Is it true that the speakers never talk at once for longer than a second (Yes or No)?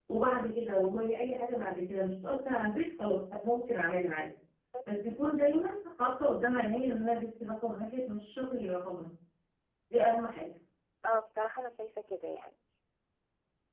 Yes